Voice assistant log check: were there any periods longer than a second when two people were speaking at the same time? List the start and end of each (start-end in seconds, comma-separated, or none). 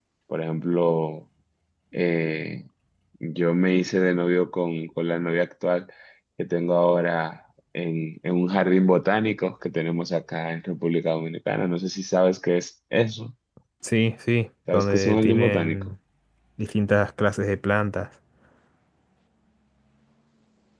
14.7-15.9